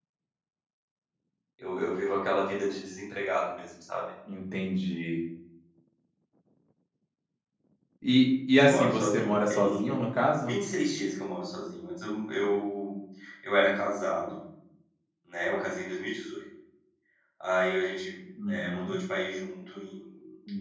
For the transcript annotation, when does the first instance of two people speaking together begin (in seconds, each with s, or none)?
8.6 s